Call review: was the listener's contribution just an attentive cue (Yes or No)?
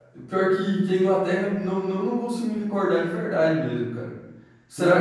No